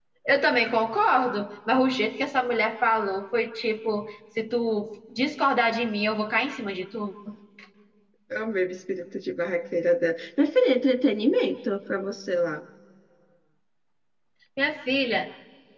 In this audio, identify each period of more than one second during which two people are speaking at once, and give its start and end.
none

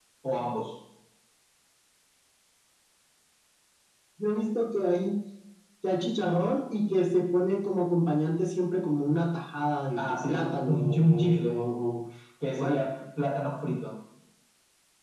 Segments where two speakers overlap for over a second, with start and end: 10.0-11.6

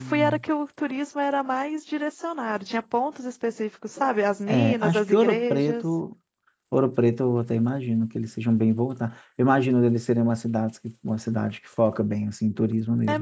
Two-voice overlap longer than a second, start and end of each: 4.5-5.8

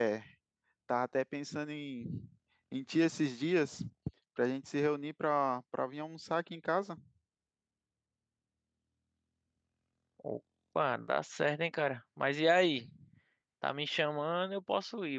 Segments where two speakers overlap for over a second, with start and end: none

